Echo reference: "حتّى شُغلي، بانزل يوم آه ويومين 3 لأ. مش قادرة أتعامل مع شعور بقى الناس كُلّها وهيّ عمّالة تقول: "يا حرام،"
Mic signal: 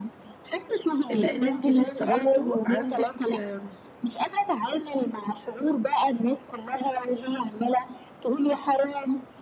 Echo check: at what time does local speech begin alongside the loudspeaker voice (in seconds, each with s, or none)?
1.1 s